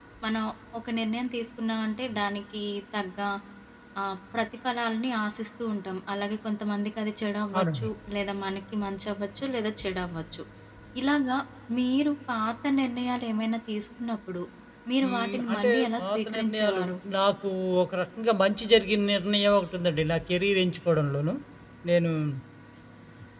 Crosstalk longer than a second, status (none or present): present